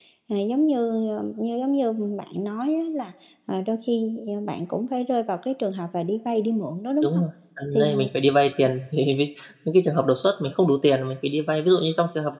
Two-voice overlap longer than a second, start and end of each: none

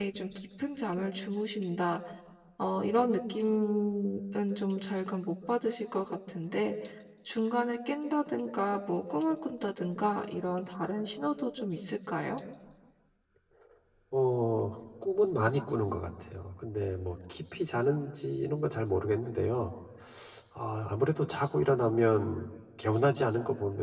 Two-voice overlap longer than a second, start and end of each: none

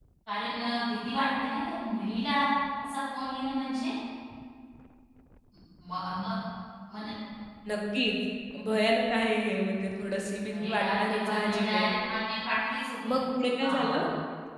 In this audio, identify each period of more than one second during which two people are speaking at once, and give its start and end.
10.5-11.8

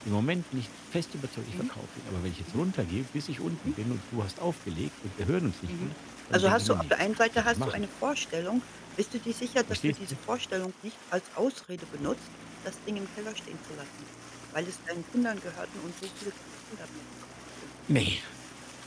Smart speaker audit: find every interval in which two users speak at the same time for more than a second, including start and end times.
6.3-7.9

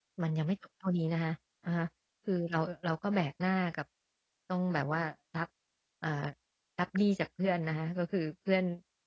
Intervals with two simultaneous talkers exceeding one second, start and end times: none

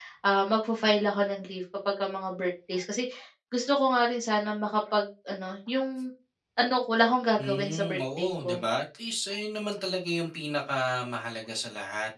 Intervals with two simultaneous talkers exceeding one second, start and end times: 7.4-8.6

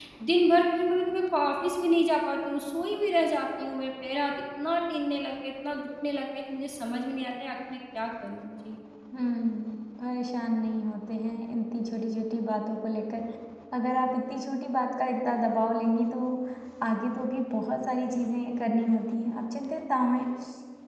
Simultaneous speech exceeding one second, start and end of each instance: none

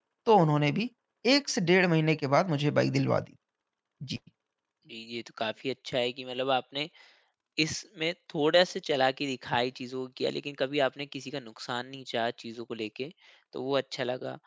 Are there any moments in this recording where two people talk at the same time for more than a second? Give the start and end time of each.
none

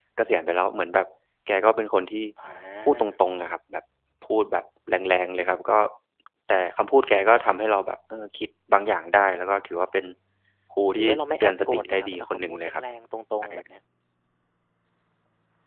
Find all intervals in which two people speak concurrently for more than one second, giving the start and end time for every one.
11.0-12.8

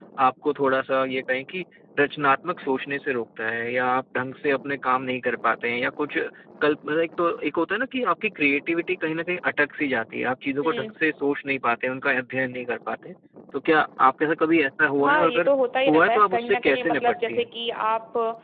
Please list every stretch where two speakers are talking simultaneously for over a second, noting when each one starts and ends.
15.9-17.5

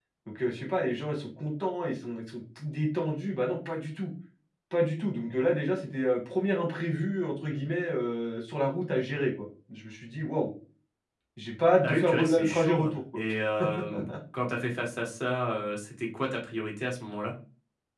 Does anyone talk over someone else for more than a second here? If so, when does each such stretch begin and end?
11.8-13.2

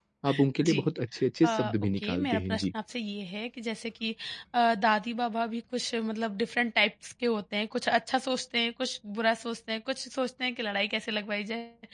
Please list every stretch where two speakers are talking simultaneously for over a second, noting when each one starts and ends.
1.4-2.6

